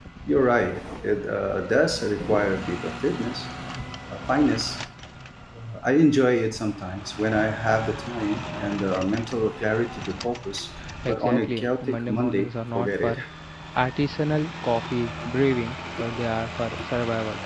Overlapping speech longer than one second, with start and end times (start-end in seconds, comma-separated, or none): 11.1-13.2